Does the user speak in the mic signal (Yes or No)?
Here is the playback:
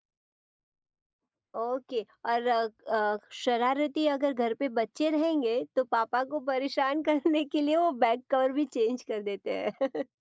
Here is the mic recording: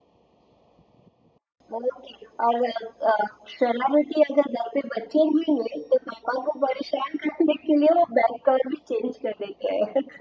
No